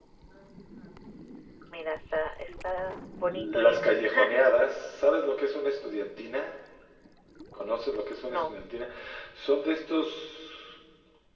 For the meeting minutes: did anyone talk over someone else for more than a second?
No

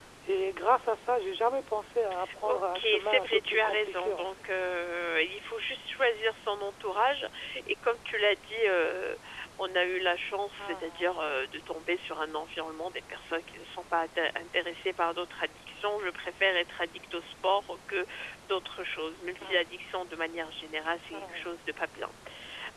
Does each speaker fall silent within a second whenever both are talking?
No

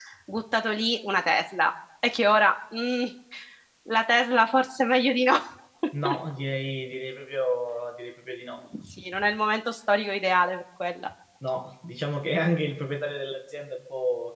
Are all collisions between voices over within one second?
Yes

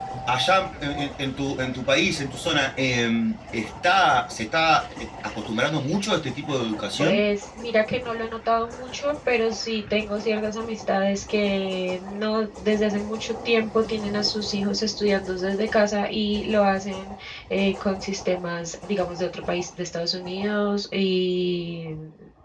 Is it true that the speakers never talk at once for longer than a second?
Yes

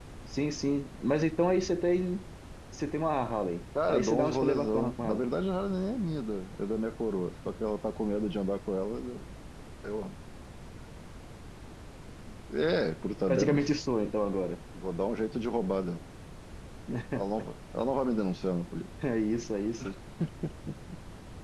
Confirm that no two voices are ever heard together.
No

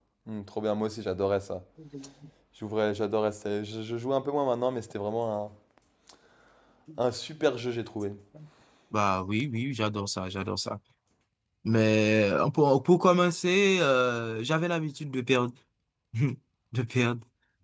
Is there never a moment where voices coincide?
Yes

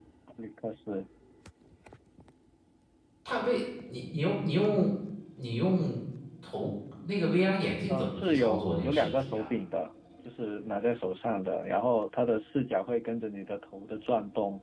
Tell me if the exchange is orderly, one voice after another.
No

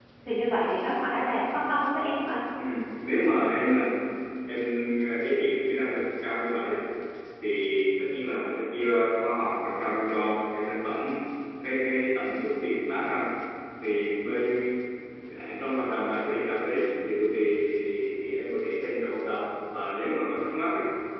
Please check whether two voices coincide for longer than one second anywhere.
No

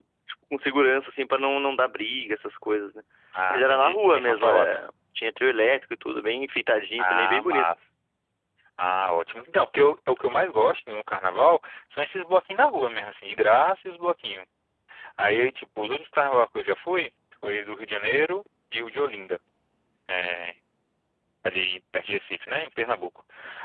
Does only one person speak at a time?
No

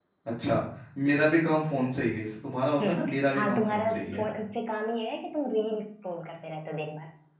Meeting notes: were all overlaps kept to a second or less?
No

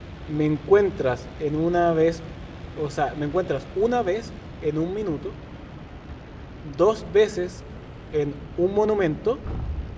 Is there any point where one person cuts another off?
No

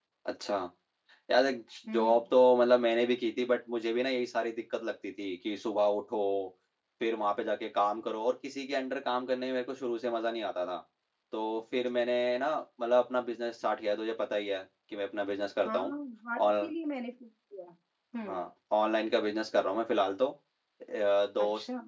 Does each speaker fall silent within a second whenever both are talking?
Yes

